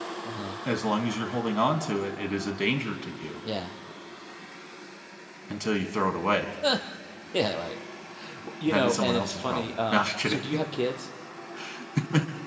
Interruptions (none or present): present